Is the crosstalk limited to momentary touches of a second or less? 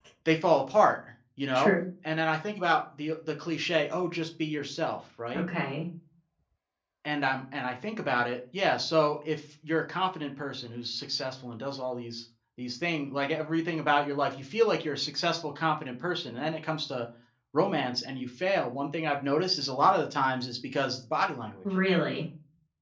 Yes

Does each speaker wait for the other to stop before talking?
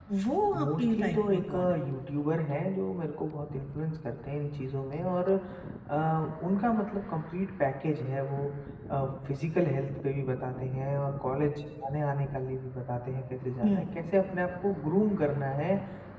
No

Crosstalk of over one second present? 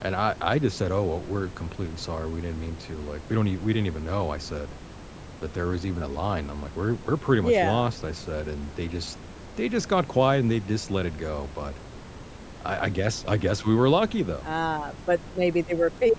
No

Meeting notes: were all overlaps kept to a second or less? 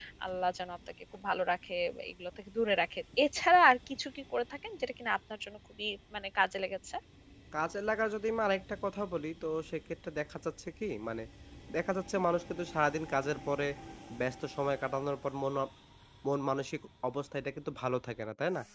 Yes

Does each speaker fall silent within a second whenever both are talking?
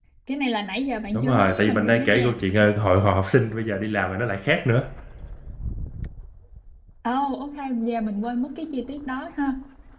No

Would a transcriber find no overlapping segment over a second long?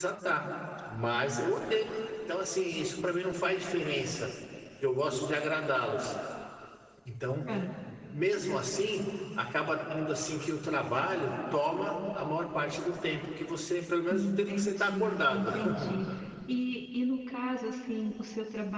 No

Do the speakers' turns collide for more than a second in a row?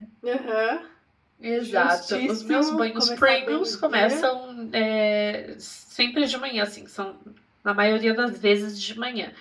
Yes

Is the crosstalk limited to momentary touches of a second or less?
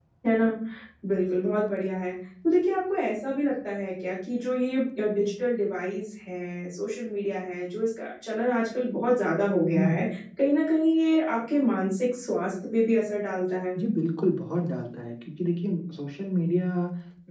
Yes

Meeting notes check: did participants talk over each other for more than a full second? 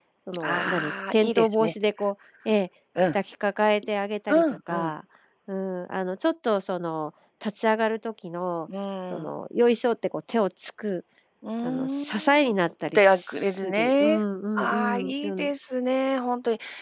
Yes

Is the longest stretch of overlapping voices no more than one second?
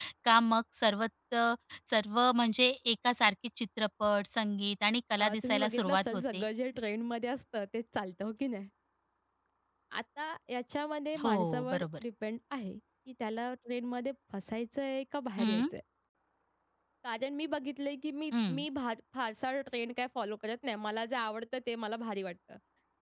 No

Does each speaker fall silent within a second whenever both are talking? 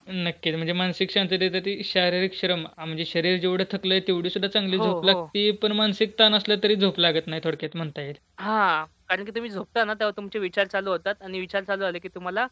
Yes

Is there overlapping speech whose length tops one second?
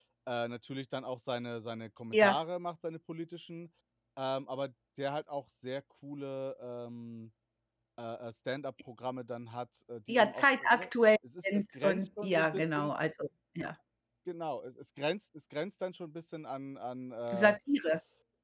Yes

